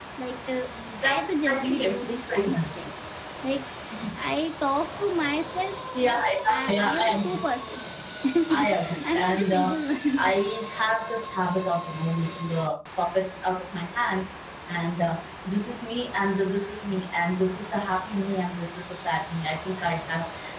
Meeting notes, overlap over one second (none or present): present